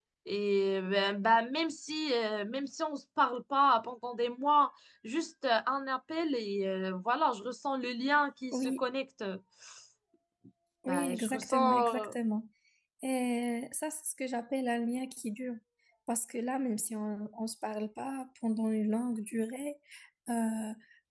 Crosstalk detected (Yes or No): Yes